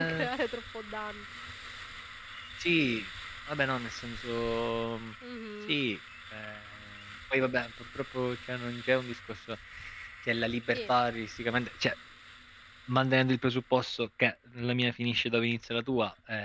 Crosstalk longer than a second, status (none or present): none